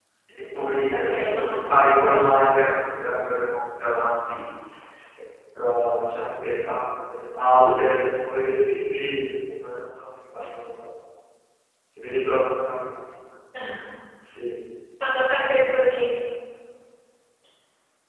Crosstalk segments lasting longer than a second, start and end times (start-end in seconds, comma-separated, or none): 0.9-2.3